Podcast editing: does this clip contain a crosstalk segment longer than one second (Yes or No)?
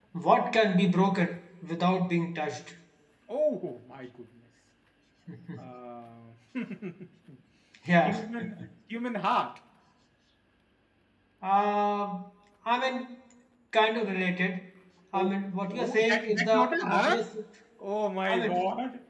Yes